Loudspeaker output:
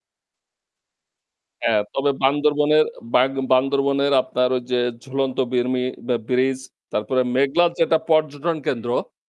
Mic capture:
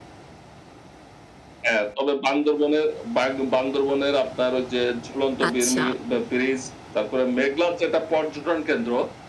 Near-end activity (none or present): present